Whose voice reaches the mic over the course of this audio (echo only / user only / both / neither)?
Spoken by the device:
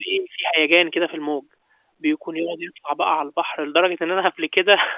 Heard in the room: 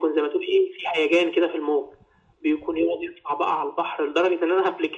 echo only